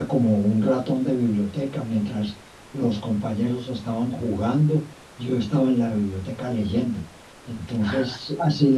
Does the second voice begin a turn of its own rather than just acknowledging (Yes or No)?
No